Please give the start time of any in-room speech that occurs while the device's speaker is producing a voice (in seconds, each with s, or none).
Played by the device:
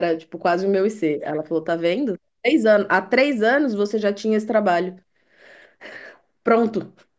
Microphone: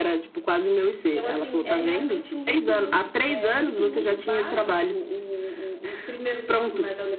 1.0 s